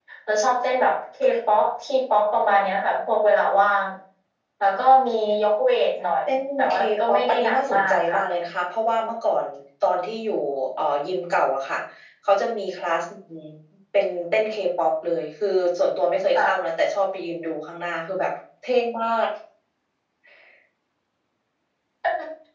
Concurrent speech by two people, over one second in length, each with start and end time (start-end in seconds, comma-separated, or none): 6.3-8.2